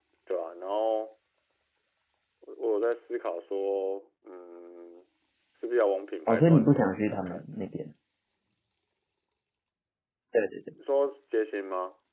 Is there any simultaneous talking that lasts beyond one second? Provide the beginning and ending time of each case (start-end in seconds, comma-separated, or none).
6.3-7.5